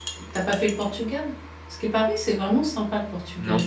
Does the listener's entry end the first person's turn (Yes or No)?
Yes